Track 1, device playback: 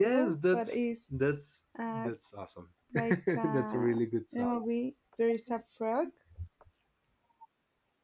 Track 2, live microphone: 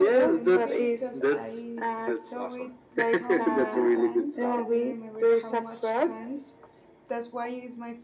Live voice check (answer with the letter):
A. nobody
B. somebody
B